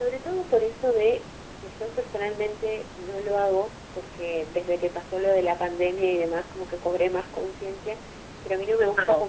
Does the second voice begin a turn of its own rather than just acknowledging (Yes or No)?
No